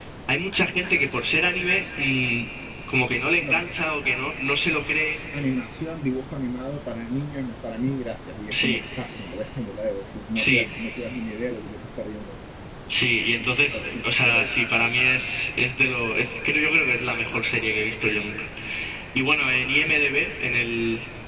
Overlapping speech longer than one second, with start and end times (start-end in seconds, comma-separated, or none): 13.4-15.0